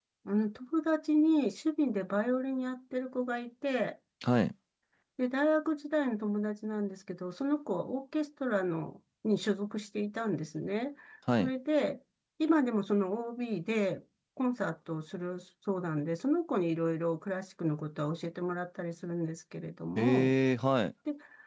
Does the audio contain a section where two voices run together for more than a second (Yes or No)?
No